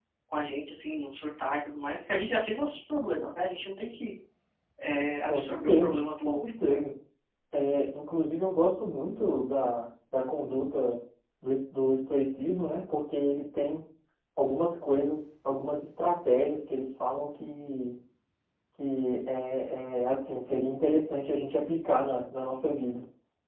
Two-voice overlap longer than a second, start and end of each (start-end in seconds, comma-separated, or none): 5.3-6.8